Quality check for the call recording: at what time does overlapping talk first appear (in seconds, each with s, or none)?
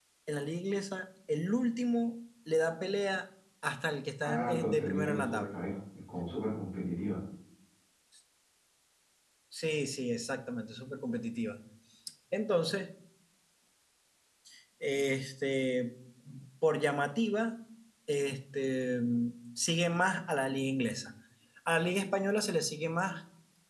4.2 s